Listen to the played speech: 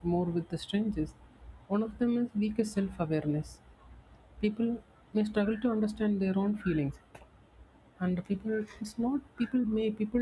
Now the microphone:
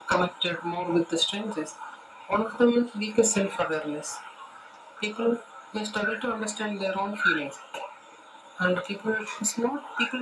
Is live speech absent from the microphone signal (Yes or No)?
Yes